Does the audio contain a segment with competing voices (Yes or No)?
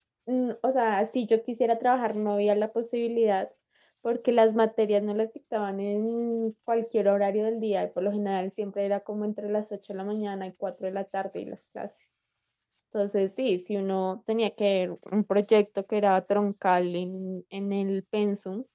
No